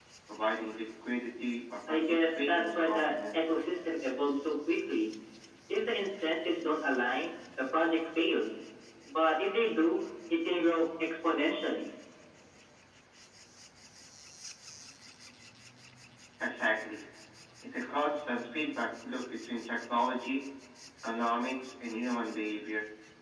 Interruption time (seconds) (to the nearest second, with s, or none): 2 s